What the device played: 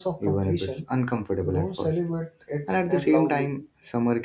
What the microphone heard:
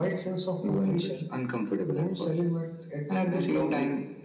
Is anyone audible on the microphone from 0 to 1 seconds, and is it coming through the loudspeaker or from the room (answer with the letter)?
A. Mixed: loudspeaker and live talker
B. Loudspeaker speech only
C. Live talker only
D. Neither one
B